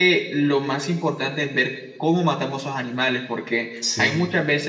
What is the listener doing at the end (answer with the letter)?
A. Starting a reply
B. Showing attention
B